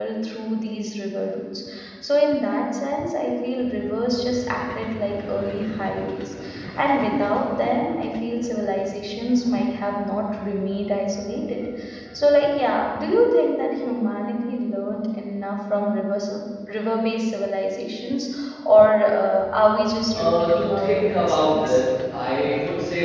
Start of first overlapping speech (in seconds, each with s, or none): 20.1 s